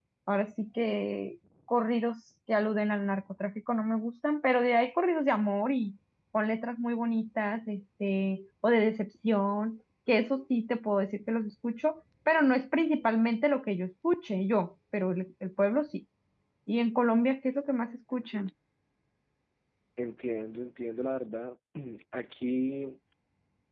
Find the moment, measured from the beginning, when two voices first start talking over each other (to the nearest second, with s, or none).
none